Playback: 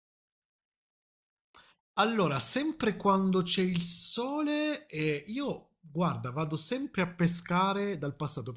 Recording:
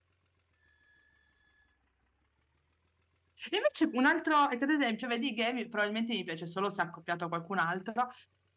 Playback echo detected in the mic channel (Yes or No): No